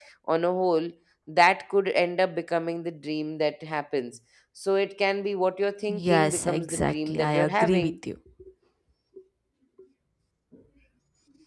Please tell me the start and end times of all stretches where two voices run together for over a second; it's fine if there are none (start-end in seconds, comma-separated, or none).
5.9-7.9